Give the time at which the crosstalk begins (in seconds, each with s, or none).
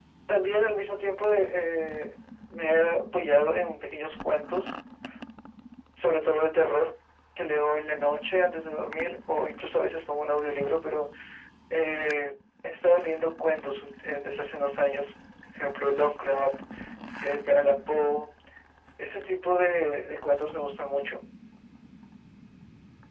none